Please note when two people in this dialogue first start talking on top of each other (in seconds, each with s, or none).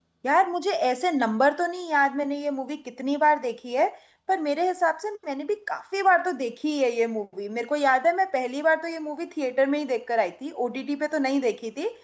none